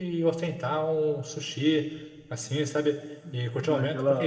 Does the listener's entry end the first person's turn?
No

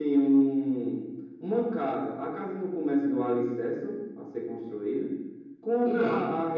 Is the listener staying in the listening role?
Yes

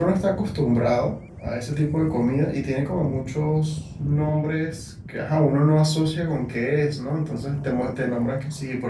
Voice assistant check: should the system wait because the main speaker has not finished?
Yes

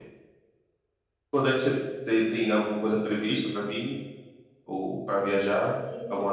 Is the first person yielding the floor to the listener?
Yes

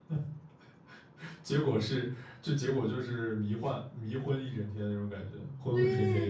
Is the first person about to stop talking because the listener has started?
Yes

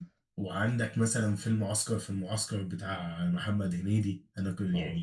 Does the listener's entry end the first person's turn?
No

